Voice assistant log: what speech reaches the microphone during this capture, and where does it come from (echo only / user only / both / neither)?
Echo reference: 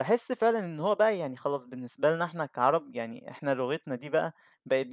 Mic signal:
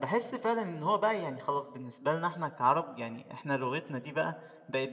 echo only